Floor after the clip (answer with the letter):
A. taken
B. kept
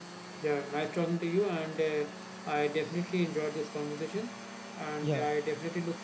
B